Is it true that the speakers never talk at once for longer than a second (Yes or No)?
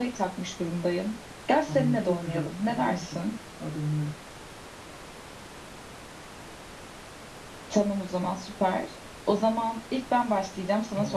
No